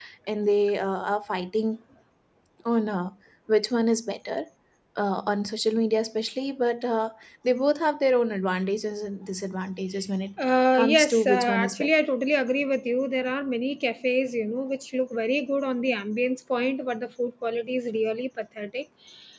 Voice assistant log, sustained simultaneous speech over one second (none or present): present